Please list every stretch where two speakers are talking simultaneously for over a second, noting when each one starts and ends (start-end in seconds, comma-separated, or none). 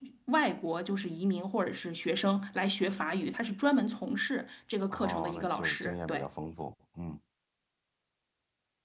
4.9-6.3